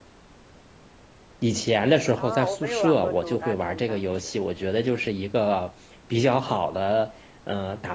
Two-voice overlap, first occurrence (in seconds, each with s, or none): 2.2 s